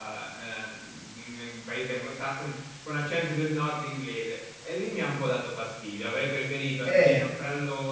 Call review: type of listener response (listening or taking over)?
listening